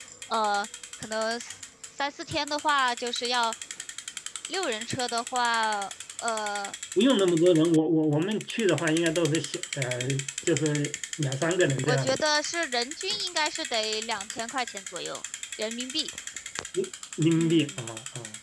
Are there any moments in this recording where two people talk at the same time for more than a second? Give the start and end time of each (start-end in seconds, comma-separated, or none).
none